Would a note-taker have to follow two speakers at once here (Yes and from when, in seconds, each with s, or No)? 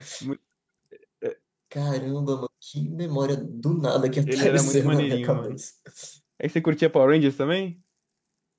Yes, from 4.3 s